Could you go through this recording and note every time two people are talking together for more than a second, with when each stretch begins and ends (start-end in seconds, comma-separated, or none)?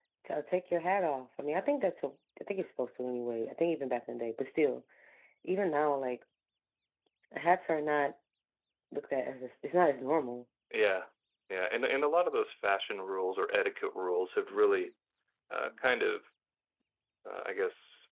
none